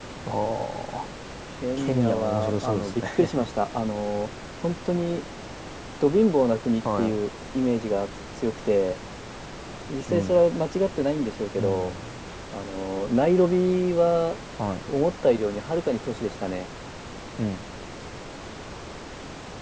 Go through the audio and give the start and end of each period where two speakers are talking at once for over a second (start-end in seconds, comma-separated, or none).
1.8-3.5